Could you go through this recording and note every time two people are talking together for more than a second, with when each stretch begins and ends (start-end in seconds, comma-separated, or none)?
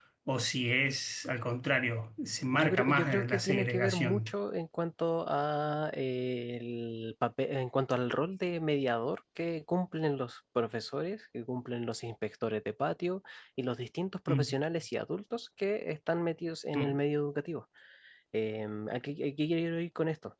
2.5-4.3